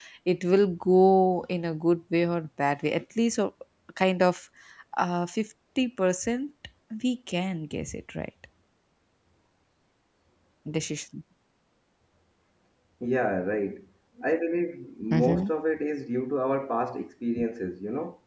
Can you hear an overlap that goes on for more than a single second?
No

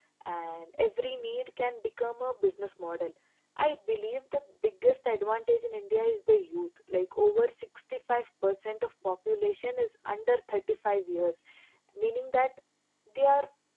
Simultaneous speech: No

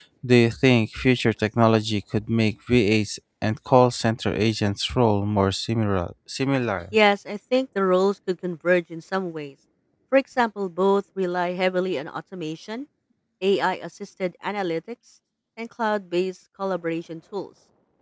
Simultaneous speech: No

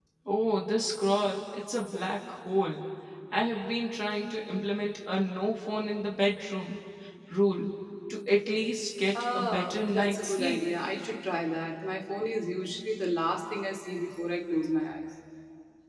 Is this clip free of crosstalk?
No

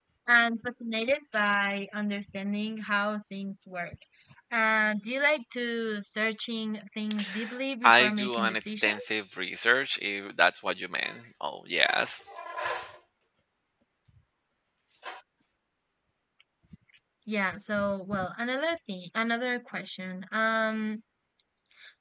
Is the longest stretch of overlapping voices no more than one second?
No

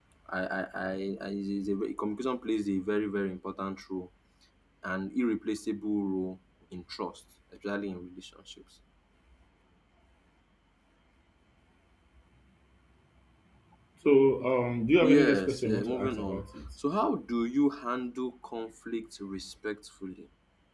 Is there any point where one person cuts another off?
Yes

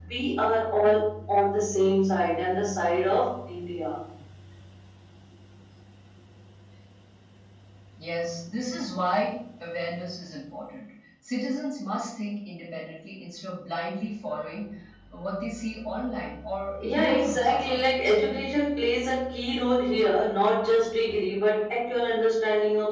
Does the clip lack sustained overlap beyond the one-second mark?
No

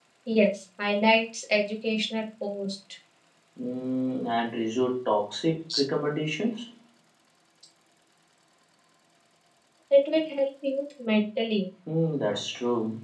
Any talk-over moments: No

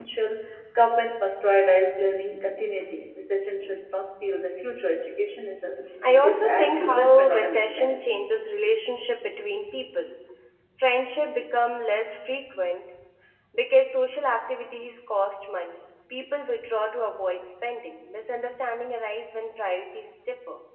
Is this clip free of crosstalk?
No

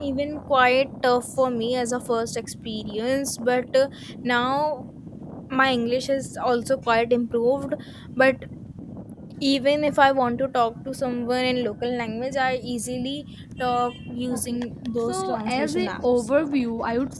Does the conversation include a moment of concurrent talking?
Yes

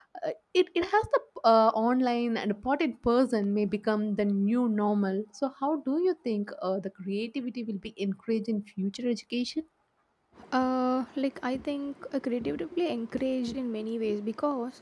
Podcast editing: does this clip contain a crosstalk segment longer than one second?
No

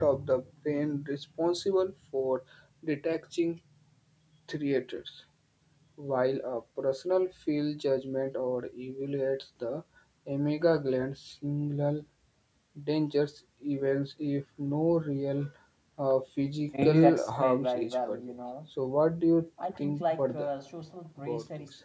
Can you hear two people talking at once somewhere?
Yes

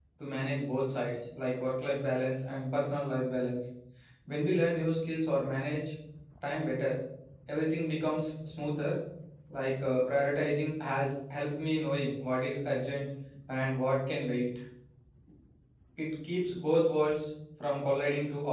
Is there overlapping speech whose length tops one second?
No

